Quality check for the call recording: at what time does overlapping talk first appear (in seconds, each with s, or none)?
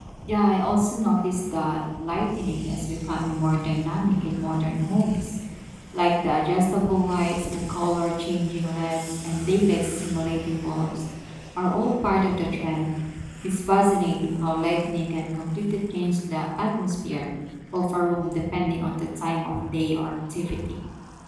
none